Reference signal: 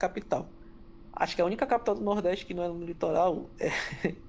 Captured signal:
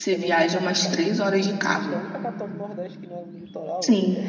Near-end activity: present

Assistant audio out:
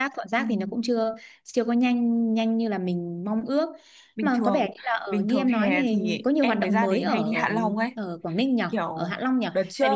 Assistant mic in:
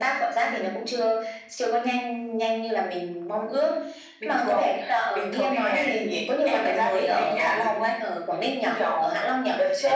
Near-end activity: none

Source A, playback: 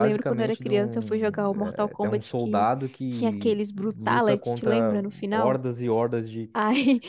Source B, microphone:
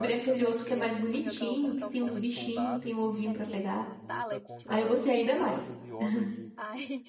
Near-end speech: present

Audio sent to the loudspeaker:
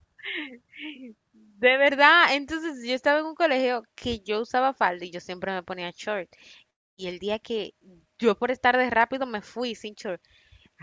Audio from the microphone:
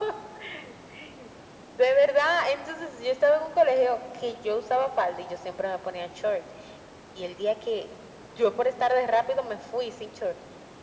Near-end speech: none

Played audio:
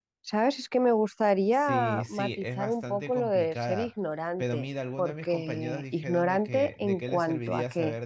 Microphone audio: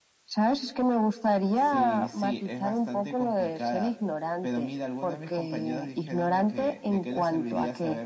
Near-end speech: none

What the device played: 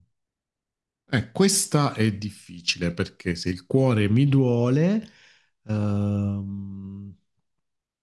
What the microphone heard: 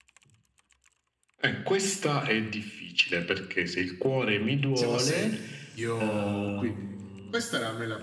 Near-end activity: present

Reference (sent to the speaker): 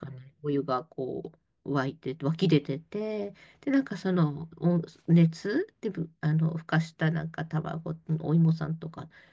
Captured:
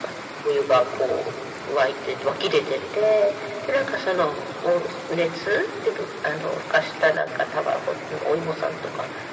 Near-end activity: none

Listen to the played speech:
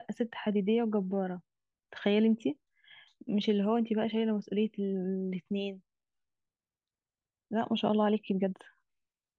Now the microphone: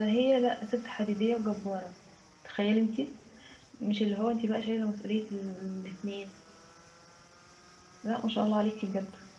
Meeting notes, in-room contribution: none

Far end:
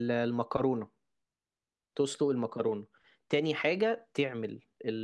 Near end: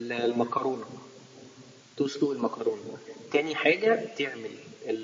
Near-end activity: none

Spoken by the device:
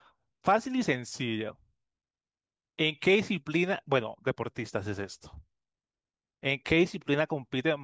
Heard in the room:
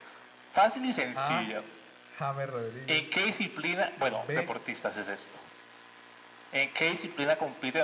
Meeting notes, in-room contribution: present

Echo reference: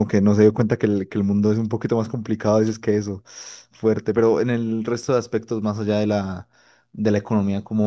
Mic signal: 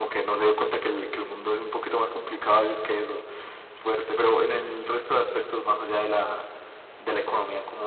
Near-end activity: none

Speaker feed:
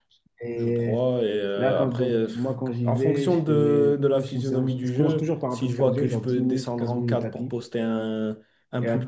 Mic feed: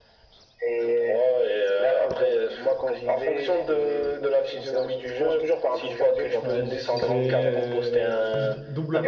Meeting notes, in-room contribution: present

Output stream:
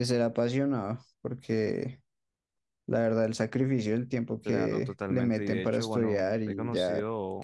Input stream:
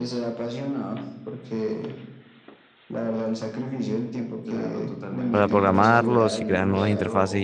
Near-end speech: present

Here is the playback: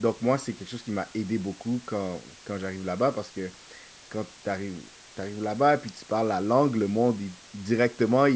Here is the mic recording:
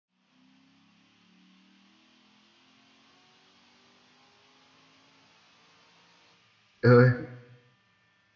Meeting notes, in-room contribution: present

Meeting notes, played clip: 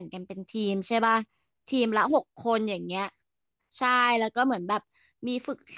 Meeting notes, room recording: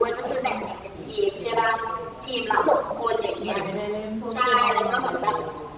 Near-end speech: present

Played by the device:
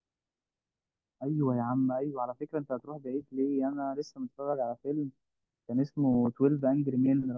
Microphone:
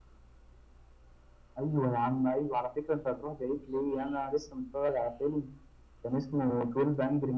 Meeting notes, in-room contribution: none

